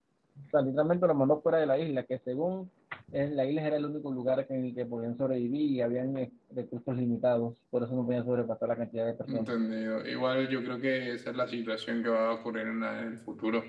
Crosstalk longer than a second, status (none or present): none